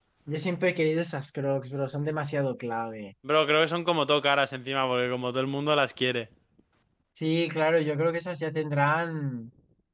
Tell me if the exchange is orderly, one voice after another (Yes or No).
Yes